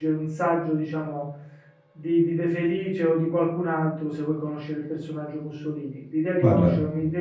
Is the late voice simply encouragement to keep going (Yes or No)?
Yes